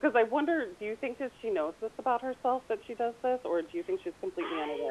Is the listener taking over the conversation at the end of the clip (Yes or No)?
Yes